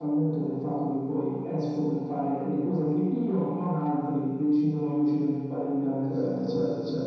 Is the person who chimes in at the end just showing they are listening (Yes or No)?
No